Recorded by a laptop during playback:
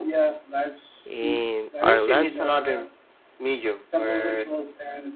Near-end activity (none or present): present